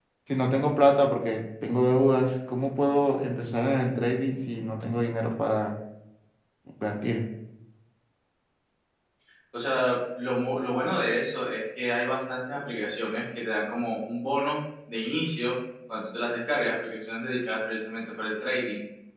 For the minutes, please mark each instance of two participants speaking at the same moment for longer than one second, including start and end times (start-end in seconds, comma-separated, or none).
none